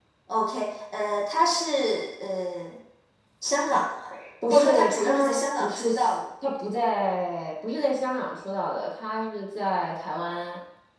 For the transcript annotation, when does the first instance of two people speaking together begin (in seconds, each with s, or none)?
4.5 s